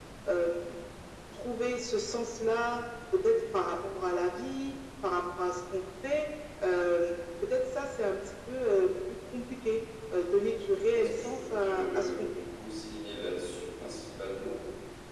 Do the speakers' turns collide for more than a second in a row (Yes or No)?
Yes